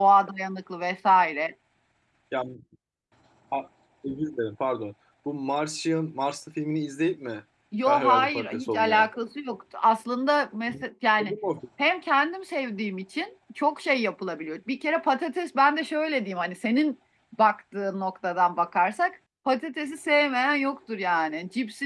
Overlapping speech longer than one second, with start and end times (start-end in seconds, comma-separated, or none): 7.8-9.1